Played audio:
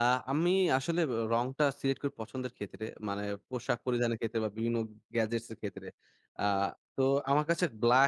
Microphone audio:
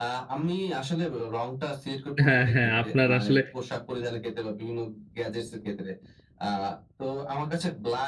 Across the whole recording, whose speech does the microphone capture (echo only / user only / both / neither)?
both